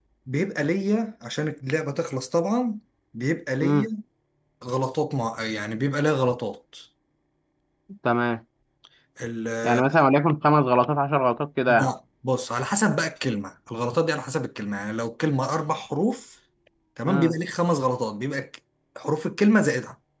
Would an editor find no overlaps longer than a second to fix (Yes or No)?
Yes